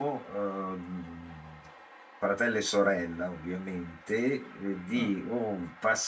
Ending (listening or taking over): listening